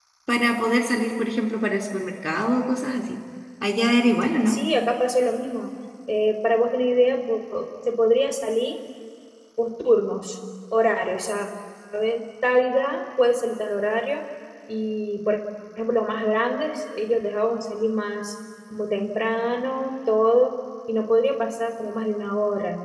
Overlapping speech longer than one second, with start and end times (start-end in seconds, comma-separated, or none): none